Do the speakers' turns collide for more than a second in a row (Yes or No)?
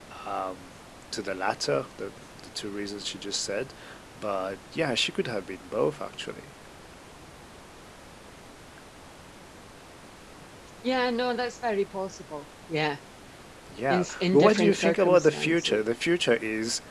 Yes